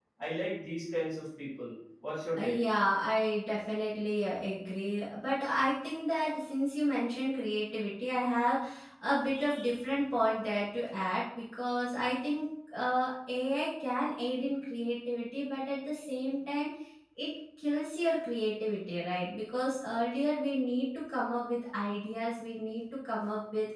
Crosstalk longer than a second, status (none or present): none